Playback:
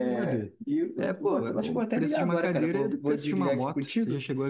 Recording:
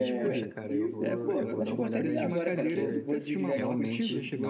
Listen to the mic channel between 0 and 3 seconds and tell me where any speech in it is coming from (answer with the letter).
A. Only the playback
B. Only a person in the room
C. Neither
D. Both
D